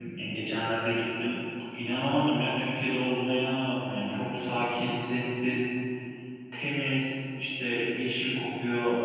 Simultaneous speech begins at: none

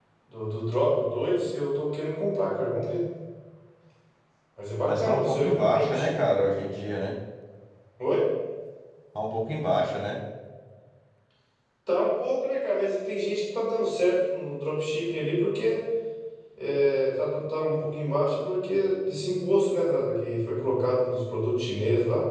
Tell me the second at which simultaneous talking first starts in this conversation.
4.8 s

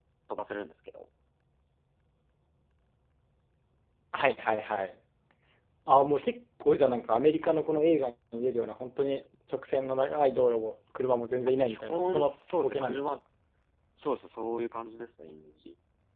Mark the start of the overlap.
11.4 s

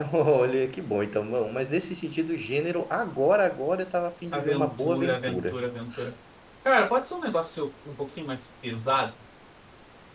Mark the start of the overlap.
4.3 s

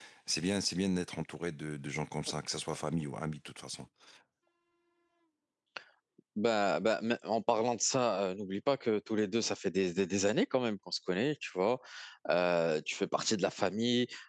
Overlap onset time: none

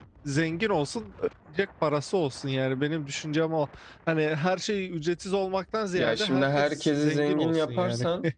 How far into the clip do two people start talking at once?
6.0 s

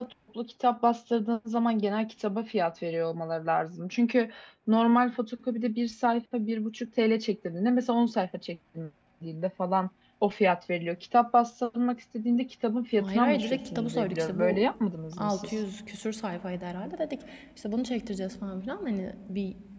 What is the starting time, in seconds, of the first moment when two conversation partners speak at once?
13.0 s

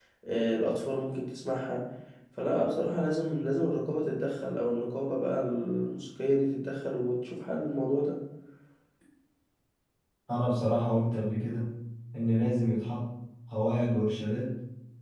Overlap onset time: none

